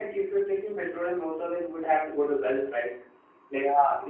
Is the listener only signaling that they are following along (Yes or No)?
Yes